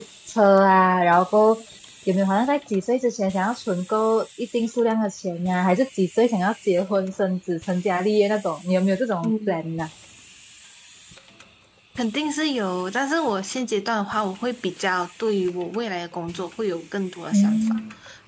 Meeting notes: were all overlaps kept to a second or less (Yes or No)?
Yes